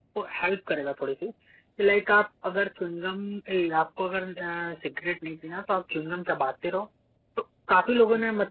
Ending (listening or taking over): listening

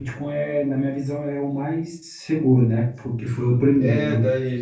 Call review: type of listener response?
taking over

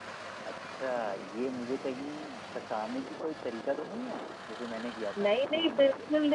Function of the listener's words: taking over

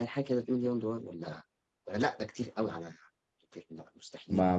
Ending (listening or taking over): taking over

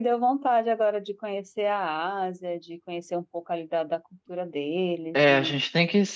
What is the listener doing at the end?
taking over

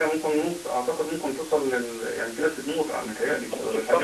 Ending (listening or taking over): taking over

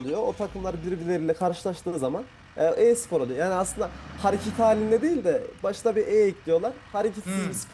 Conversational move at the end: taking over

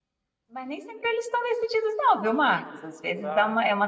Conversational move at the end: listening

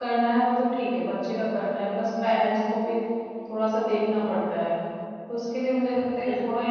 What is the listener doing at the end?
listening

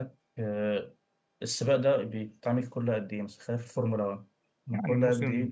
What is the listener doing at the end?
taking over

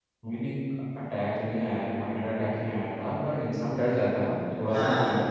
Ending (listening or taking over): listening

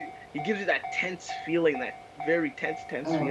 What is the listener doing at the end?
taking over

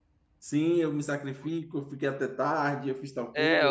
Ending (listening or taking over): taking over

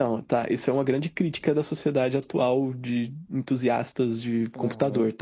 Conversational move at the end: taking over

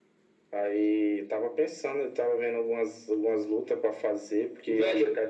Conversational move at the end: taking over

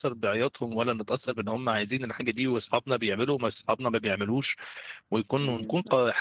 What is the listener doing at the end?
listening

